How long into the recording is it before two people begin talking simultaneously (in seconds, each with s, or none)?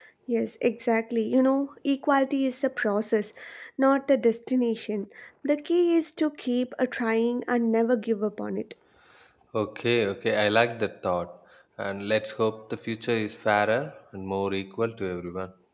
none